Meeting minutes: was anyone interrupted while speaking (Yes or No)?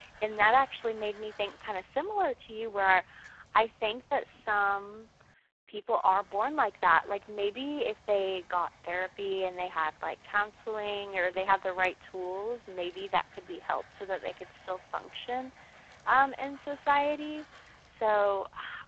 No